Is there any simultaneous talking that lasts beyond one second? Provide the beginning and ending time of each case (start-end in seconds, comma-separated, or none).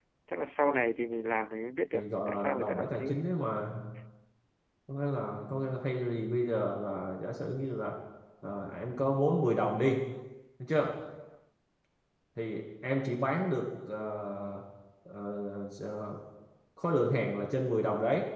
1.9-3.2